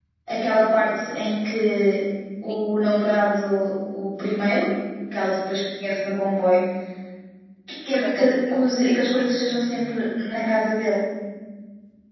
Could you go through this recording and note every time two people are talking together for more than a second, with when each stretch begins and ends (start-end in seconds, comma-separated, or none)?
7.9-9.9